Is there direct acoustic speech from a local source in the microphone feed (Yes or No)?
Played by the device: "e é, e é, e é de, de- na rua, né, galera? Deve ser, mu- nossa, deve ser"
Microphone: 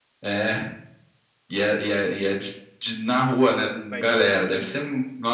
Yes